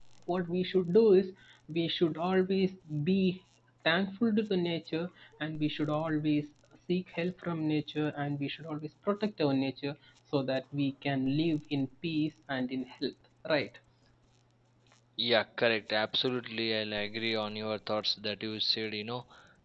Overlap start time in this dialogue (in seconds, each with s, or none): none